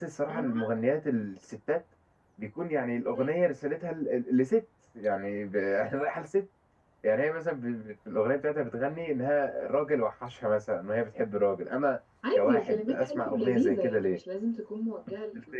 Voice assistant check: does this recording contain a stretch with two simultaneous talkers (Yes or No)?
Yes